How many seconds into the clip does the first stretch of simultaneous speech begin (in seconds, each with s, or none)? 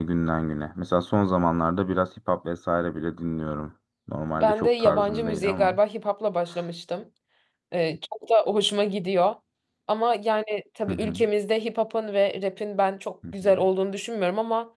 4.4 s